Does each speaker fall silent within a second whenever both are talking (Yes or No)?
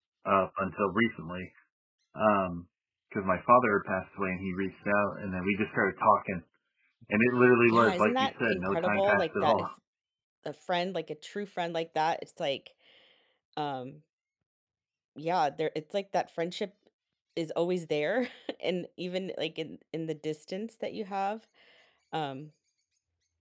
No